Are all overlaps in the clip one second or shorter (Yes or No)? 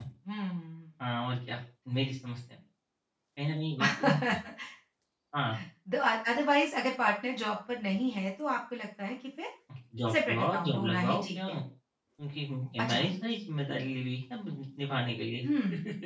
No